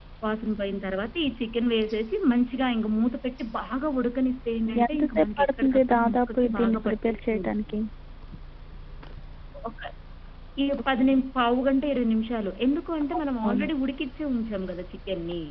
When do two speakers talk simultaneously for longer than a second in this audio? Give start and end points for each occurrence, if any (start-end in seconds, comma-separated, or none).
4.7-7.8